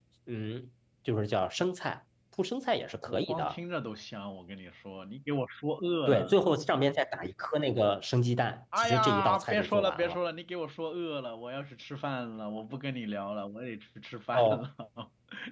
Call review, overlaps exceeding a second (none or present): present